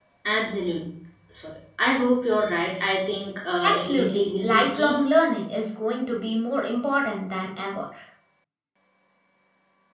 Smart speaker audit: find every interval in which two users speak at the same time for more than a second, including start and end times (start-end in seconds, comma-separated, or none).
3.6-5.0